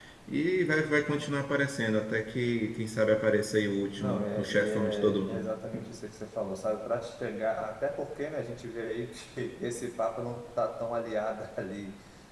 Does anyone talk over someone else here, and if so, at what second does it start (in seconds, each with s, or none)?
4.0 s